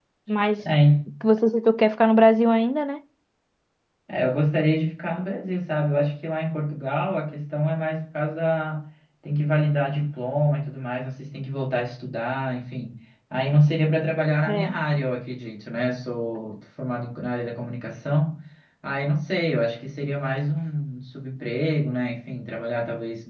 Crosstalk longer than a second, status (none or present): none